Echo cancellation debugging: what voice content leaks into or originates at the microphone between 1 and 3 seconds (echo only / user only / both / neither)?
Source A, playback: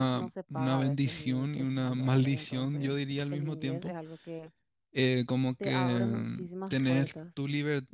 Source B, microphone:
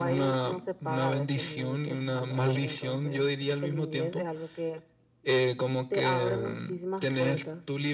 echo only